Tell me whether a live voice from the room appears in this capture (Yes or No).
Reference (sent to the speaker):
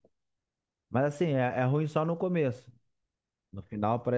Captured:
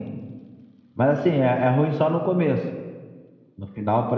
No